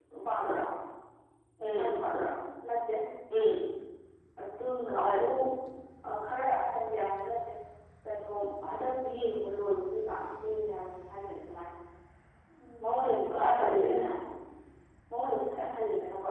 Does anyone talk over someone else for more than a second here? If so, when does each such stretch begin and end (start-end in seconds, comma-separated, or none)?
12.8-14.1